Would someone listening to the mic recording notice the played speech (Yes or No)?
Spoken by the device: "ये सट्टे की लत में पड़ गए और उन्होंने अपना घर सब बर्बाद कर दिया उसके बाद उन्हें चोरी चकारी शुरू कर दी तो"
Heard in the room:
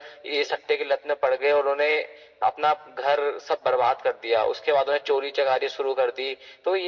Yes